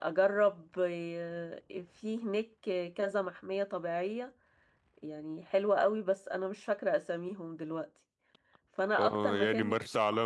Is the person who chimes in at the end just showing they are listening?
No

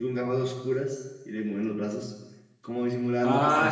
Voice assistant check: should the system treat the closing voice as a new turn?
Yes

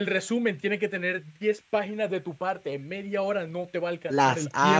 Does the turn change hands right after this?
Yes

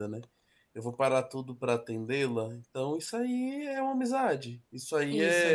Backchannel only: Yes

